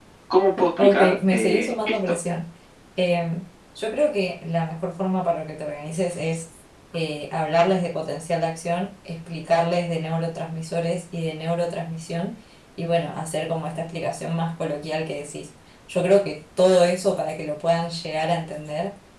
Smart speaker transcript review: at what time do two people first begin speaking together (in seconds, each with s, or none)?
0.8 s